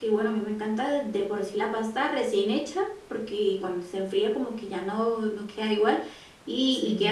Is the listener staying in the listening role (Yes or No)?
Yes